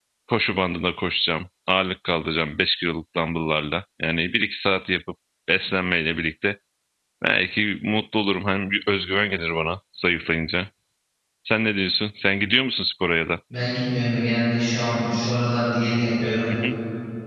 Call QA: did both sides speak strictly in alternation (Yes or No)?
Yes